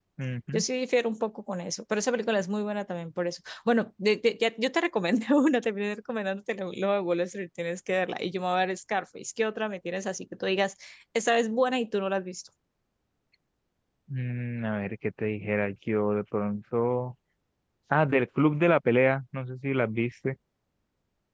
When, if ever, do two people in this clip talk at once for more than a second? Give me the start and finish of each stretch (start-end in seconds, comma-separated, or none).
none